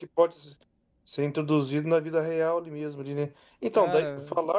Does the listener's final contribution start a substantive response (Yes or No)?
No